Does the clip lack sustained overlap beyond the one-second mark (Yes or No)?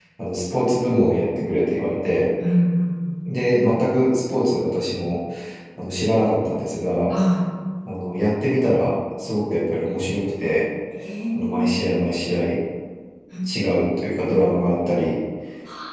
Yes